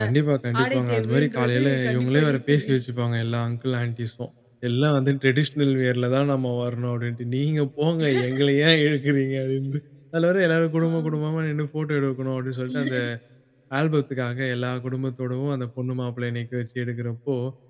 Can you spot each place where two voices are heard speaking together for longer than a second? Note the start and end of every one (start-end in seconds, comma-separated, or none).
0.6-2.7